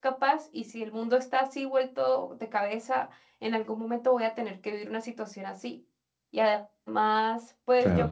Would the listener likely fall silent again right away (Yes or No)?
Yes